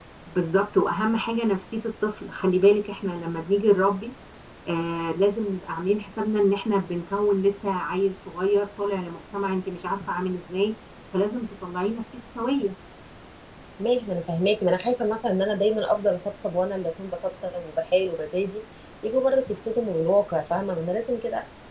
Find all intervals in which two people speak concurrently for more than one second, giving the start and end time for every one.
none

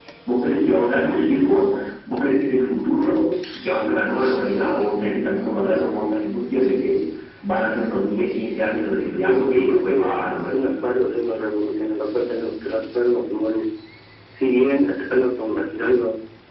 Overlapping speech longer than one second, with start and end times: 9.2-10.7

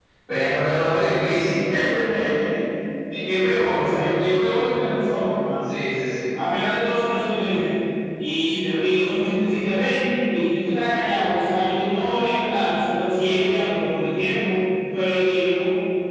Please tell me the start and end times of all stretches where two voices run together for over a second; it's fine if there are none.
none

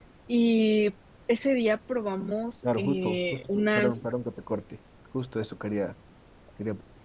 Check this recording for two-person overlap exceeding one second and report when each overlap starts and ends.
2.6-4.0

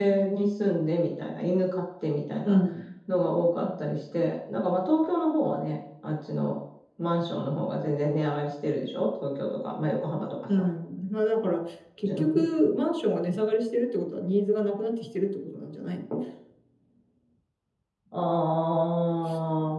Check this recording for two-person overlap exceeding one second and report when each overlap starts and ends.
none

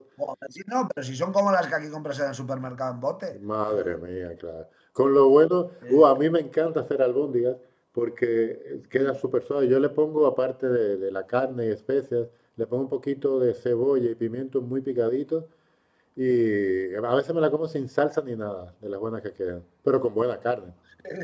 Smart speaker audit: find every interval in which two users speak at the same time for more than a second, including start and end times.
none

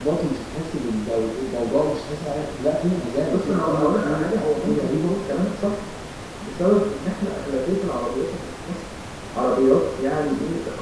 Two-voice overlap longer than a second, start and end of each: 3.3-5.1

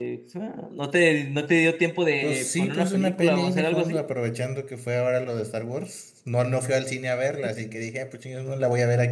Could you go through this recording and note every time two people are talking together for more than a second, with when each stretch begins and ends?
2.2-4.0

